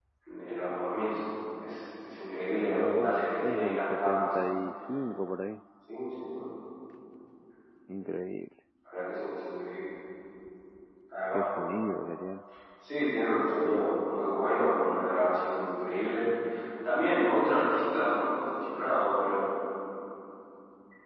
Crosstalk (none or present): present